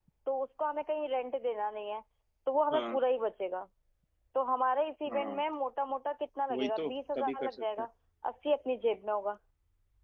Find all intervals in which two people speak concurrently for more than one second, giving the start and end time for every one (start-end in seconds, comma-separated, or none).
6.5-7.9